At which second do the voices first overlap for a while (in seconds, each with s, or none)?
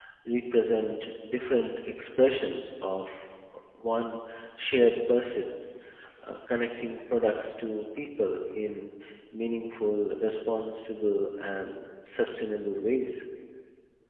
none